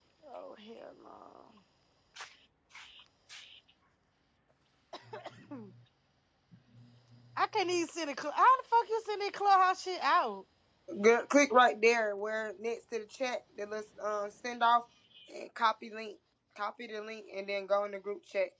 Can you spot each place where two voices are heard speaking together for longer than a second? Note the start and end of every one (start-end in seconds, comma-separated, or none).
none